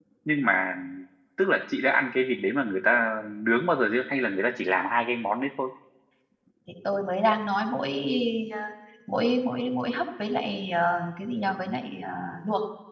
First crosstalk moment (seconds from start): none

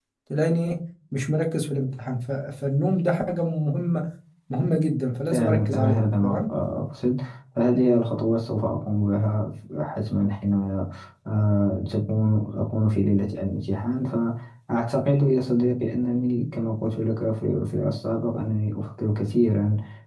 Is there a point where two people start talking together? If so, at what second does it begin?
5.3 s

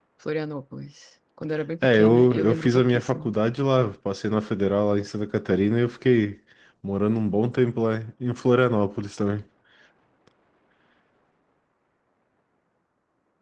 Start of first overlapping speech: 1.8 s

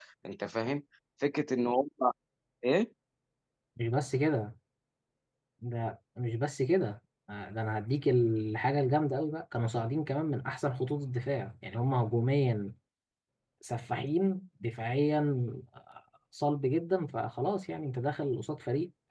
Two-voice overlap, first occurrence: none

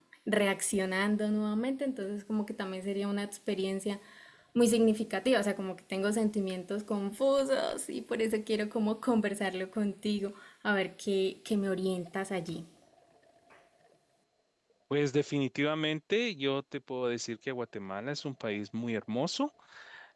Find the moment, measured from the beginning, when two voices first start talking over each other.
none

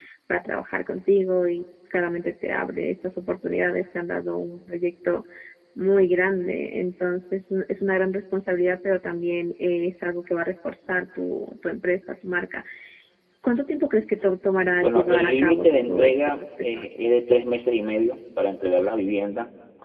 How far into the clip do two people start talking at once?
14.8 s

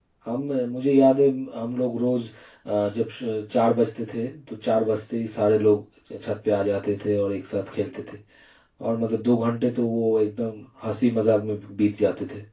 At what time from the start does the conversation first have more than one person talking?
none

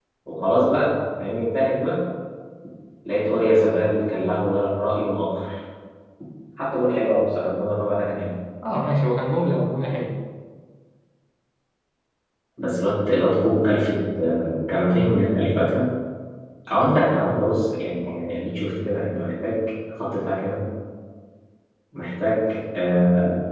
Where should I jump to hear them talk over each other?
none

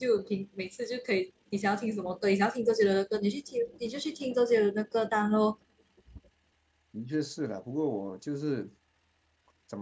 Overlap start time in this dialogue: none

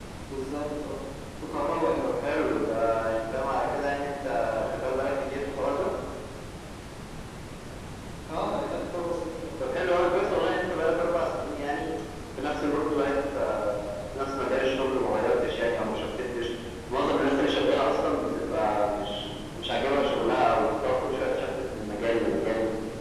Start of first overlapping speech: none

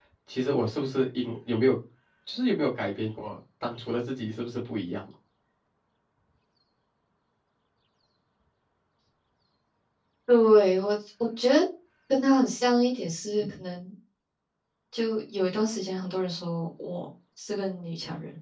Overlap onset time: none

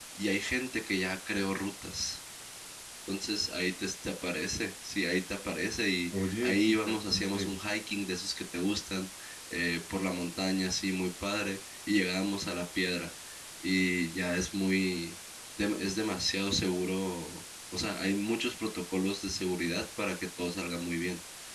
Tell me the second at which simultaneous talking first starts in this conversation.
6.1 s

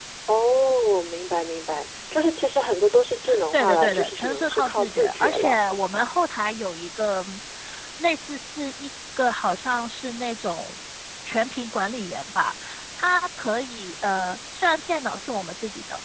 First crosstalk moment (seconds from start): 3.5 s

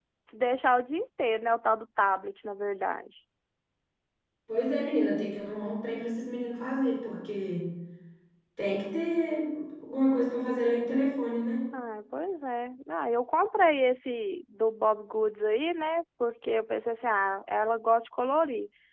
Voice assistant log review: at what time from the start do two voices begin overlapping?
none

